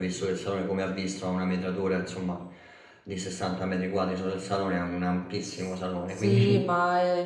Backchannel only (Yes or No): No